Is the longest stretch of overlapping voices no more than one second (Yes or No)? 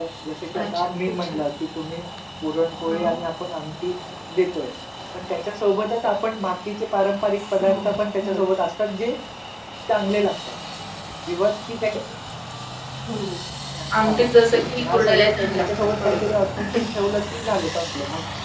No